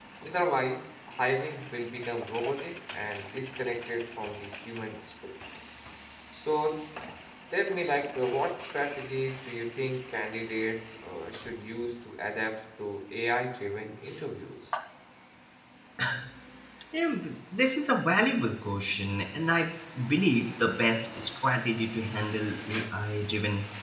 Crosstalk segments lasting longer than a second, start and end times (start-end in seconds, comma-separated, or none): none